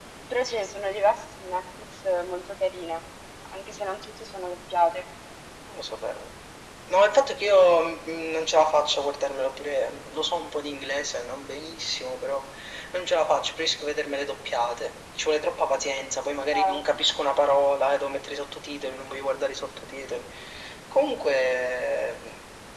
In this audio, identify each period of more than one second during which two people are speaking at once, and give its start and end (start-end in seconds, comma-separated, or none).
none